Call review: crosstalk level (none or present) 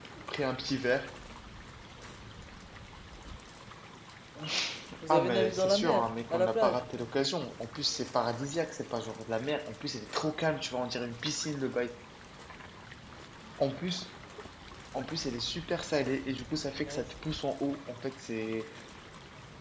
present